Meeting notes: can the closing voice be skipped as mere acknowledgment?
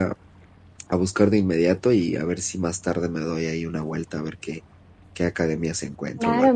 No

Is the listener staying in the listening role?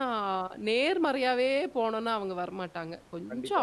No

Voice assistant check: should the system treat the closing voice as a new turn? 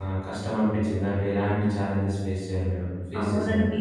Yes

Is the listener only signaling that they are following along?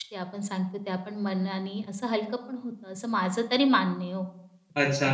No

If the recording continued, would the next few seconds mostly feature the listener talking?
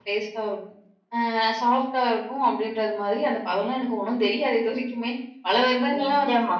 No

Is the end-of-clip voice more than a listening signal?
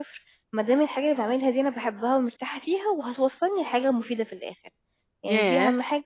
Yes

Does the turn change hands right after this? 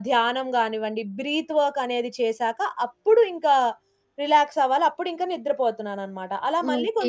Yes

